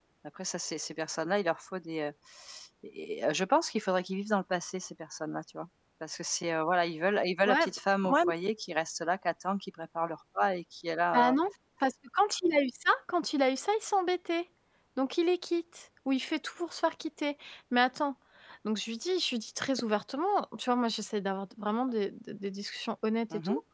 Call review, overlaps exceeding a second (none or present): none